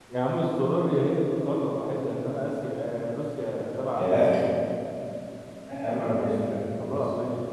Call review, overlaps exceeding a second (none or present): none